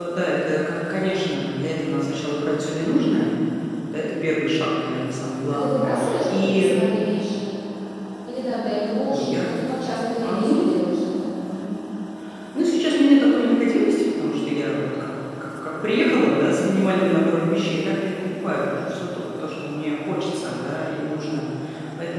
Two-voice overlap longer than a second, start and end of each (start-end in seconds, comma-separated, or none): 5.5-6.7